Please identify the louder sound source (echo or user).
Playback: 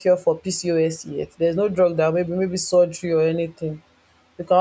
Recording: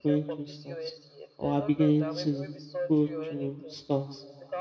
user